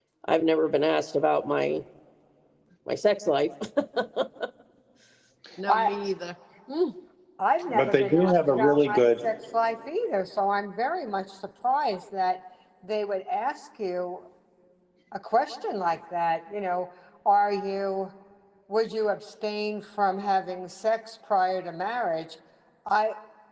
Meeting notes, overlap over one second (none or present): present